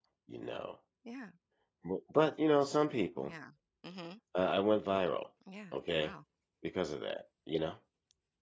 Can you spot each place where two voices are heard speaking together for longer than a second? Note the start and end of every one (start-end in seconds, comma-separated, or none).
none